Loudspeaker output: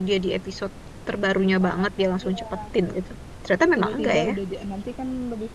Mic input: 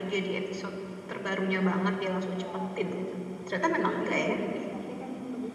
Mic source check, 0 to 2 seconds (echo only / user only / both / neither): echo only